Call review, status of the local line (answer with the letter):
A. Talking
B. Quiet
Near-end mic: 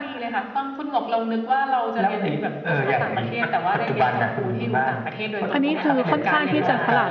A